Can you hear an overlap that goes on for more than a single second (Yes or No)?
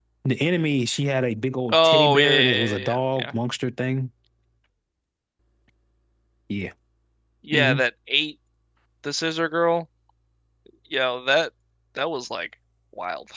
Yes